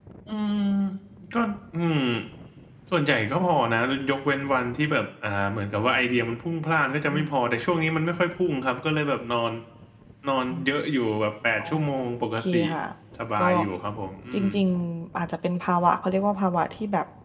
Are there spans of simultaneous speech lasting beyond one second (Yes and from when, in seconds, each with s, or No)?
No